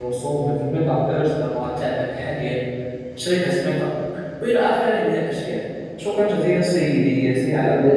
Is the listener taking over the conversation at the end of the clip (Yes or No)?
Yes